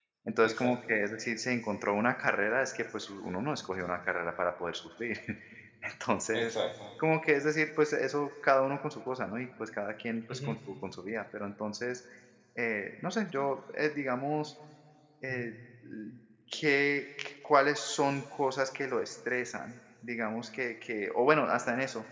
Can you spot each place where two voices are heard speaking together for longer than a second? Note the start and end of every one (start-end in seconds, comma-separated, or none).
none